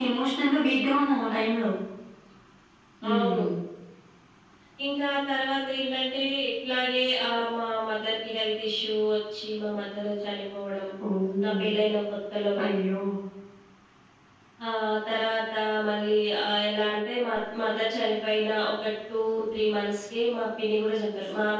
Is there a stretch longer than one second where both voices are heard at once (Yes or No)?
No